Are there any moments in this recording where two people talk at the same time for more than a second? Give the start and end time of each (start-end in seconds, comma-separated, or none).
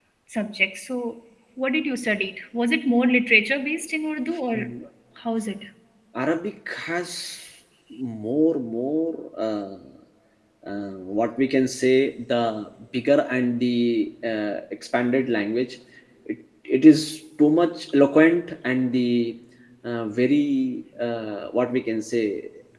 none